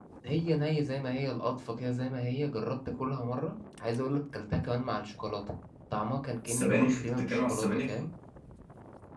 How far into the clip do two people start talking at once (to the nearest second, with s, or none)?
6 s